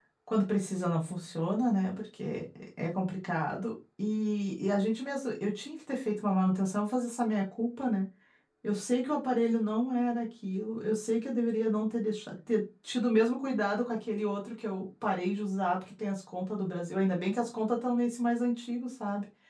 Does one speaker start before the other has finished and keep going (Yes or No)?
No